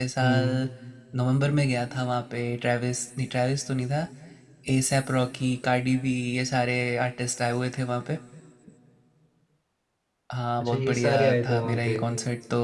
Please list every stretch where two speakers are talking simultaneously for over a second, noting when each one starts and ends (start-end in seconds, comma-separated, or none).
10.6-12.0